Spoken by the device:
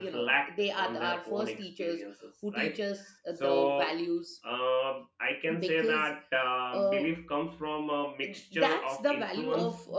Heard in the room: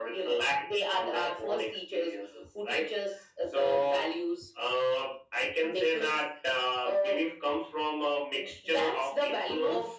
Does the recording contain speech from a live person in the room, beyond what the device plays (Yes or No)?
No